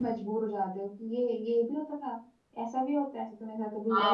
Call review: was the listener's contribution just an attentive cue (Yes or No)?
No